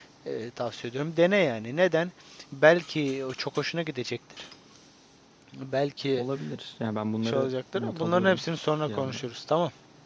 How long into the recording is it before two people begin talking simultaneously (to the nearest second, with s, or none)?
7 s